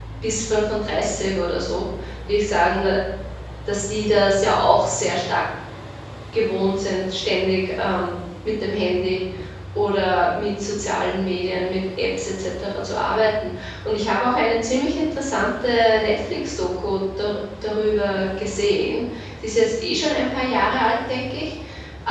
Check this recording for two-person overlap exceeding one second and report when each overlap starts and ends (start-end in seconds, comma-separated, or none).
none